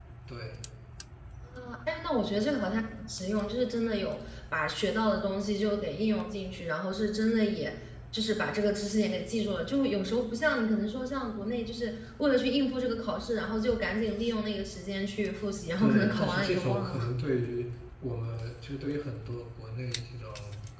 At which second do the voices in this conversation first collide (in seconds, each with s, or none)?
15.8 s